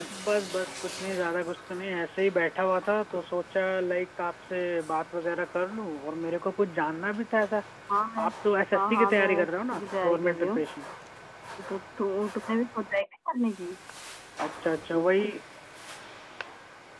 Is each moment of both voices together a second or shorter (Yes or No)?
No